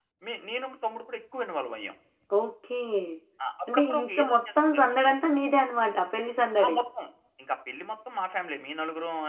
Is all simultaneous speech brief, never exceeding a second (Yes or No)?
No